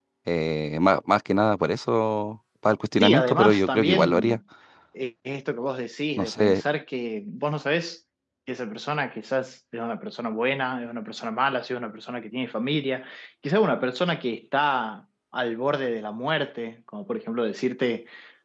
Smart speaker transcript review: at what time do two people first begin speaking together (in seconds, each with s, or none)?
3.0 s